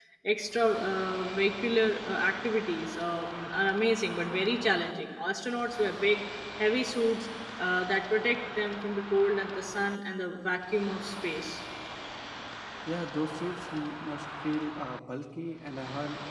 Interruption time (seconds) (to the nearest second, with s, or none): none